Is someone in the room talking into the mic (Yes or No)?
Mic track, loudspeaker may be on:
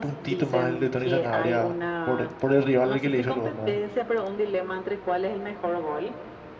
Yes